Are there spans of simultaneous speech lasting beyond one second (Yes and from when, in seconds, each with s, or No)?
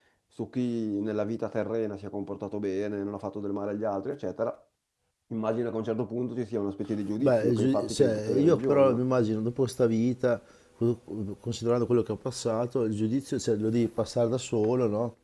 Yes, from 7.2 s